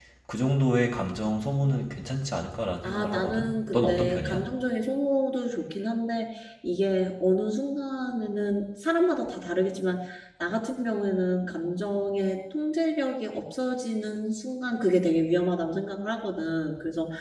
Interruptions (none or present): present